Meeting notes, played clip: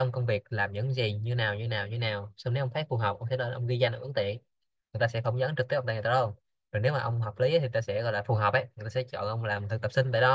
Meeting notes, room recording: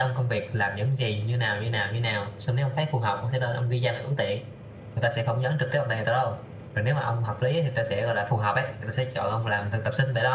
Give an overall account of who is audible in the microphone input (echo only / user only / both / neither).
echo only